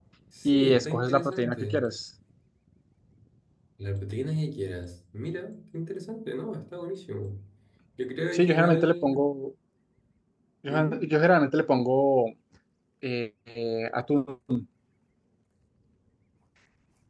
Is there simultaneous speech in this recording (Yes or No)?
Yes